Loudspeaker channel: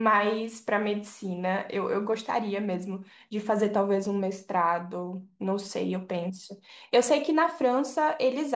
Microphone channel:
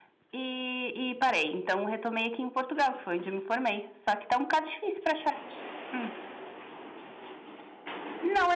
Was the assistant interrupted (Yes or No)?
Yes